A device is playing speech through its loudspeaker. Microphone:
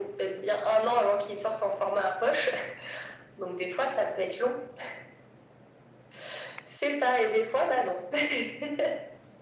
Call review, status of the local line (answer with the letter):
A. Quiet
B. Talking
A